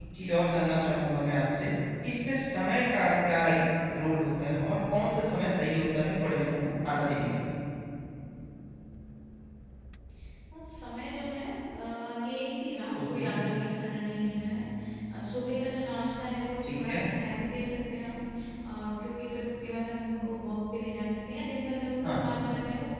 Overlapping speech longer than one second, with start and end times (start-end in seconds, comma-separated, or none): none